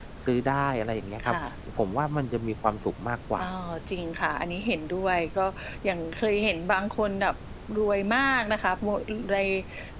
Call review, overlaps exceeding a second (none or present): none